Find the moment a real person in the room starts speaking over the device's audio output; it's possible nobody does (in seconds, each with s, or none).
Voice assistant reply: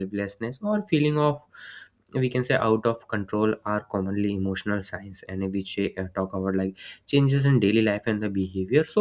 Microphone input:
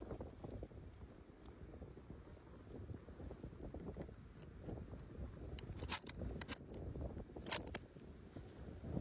none